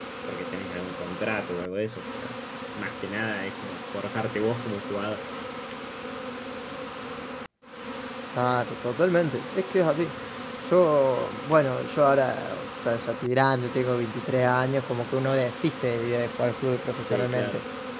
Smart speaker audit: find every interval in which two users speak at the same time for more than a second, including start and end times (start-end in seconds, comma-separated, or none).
none